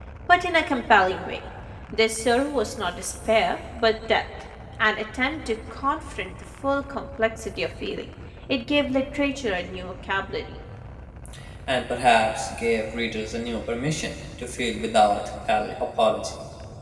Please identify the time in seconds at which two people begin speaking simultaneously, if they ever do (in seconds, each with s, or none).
none